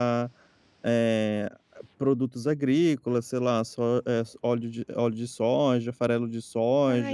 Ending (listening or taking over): taking over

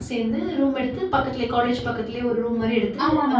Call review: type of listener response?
taking over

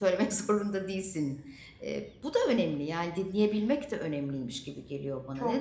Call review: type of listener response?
taking over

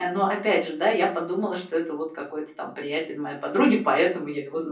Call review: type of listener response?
taking over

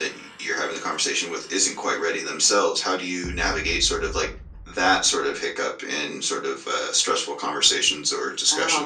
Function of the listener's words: taking over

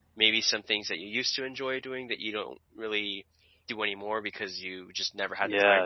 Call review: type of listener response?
taking over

